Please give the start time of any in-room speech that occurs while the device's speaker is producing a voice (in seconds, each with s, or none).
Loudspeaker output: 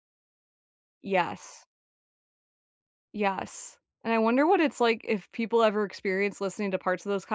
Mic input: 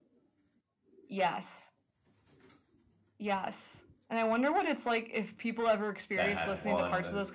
6.2 s